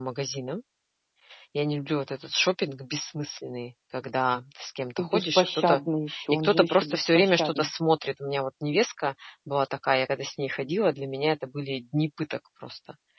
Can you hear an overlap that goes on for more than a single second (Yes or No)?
Yes